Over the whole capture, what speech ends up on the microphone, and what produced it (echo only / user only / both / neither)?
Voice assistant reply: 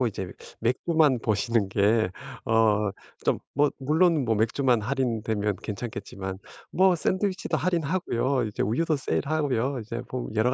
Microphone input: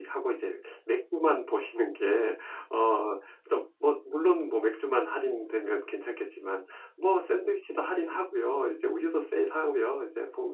echo only